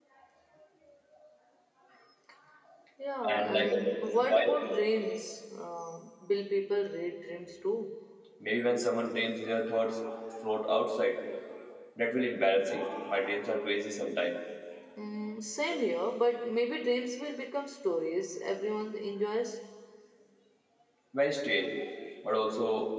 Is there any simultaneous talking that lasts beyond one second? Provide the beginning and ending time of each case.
3.2-4.6

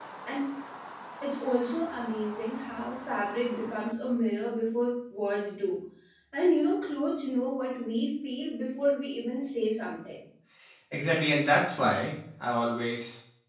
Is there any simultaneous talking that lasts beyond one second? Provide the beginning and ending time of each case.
none

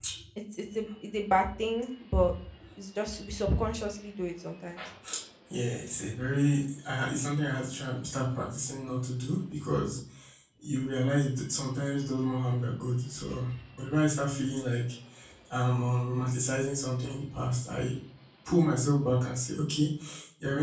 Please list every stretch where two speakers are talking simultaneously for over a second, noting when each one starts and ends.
none

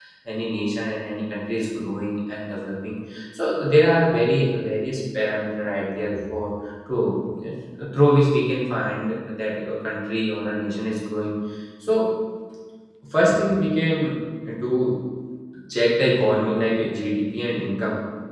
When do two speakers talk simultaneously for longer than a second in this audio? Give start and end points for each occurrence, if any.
none

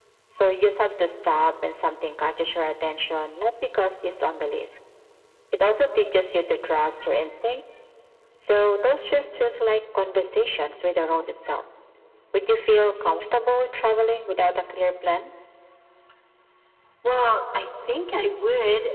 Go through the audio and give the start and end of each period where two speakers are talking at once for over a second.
none

